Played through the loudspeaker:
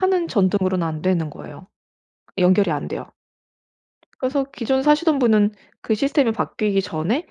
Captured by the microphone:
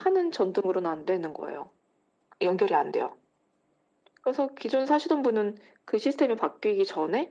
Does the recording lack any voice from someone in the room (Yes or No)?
Yes